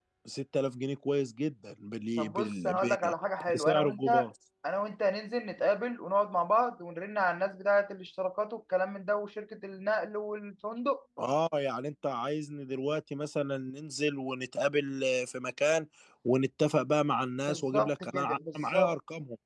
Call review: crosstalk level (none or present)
present